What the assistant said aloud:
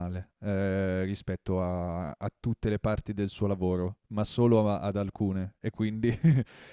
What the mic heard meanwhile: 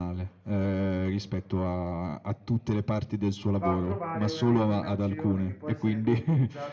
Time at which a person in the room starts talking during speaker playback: 3.5 s

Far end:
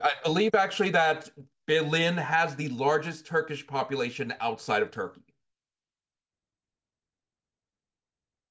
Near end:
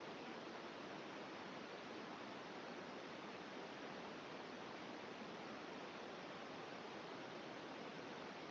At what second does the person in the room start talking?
none

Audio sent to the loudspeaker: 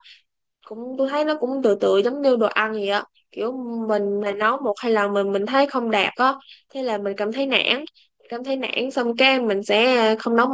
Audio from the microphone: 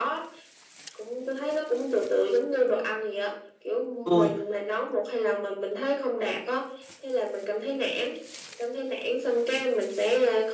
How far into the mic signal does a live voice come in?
4.0 s

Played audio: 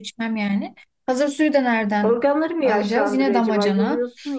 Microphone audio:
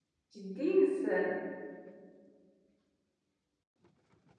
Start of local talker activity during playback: 0.3 s

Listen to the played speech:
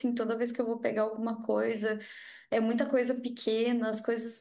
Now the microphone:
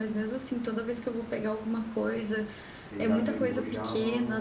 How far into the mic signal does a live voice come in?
2.8 s

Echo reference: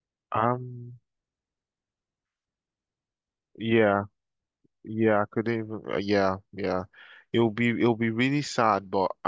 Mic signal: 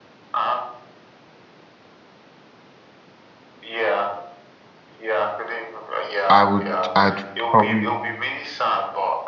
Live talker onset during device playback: 6.3 s

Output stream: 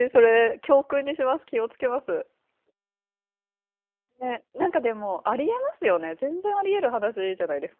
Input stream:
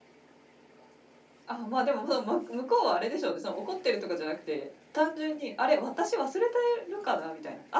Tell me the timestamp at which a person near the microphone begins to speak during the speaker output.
1.4 s

